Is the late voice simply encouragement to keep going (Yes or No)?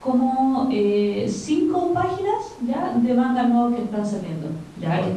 Yes